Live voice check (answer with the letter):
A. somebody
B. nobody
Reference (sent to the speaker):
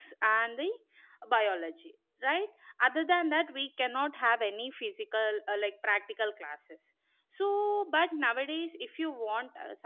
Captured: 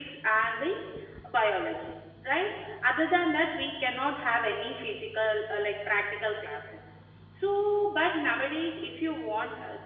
B